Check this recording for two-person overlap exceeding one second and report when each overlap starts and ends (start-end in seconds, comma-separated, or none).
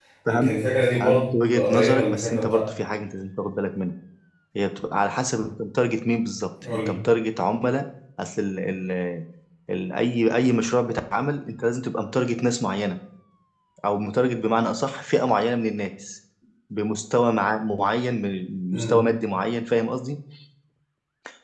0.9-2.7